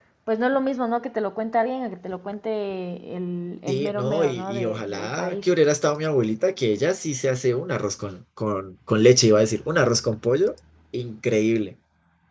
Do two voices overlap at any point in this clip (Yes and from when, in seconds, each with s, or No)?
Yes, from 3.7 s